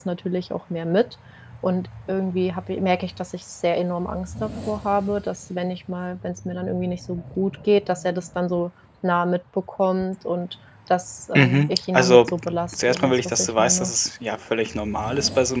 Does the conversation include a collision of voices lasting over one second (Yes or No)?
Yes